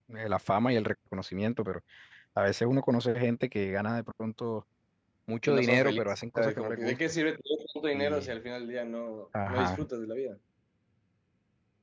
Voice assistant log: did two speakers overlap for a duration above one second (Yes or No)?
Yes